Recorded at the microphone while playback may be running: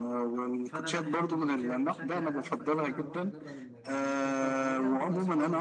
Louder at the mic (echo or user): echo